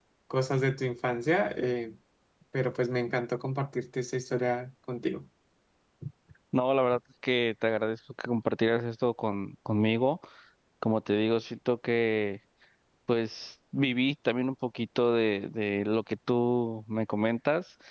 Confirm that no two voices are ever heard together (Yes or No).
Yes